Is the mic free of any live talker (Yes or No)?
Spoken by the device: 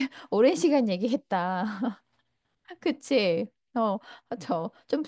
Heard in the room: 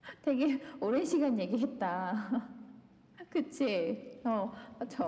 Yes